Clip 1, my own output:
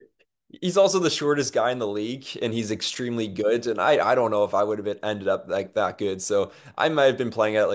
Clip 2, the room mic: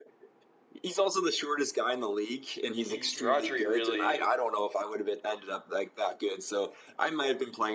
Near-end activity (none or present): present